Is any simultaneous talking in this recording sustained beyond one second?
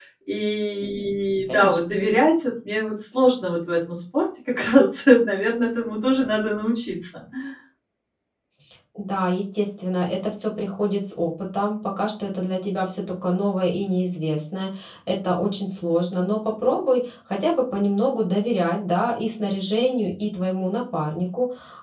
No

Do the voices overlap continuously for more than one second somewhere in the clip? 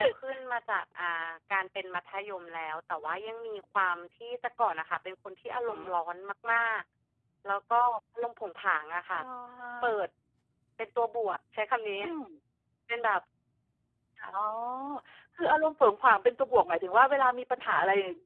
No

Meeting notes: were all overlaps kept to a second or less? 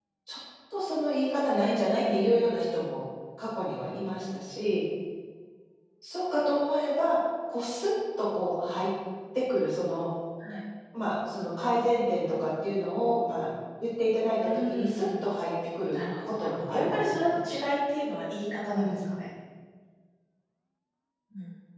No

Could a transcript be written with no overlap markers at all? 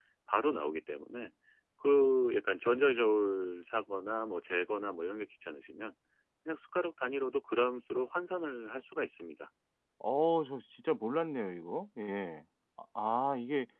Yes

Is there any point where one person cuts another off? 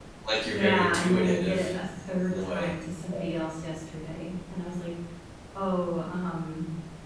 Yes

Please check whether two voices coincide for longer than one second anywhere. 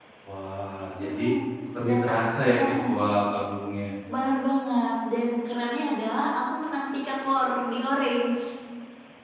No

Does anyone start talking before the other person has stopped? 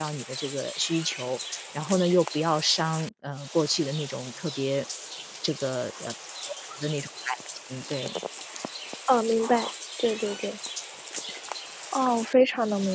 No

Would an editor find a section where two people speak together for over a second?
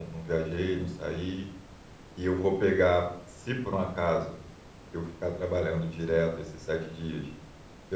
No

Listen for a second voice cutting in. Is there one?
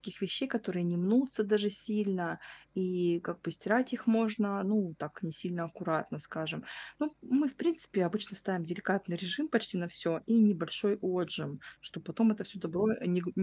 No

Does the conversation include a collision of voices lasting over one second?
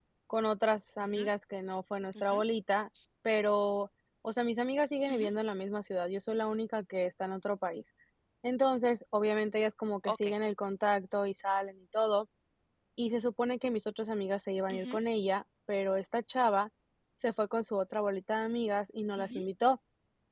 No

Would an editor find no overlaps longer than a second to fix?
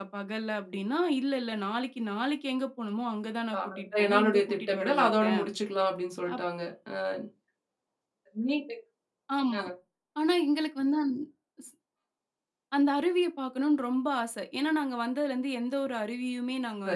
No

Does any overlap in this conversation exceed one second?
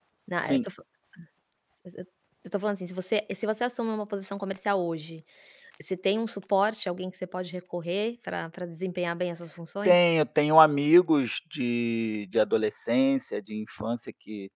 No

